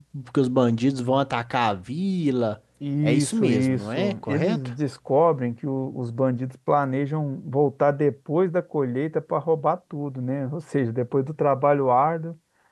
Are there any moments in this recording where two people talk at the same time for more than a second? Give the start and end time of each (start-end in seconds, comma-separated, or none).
3.0-4.6